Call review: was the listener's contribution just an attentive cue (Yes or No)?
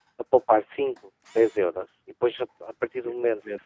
Yes